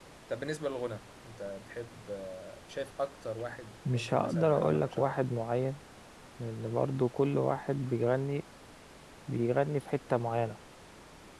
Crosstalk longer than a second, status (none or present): present